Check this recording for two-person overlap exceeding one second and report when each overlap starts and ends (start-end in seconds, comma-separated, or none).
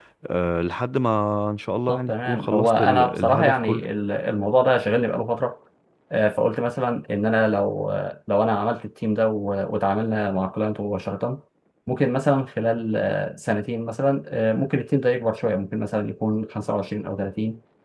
1.9-3.9